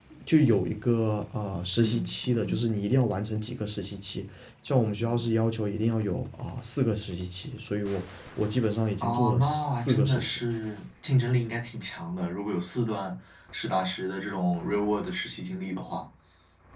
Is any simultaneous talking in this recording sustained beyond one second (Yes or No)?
Yes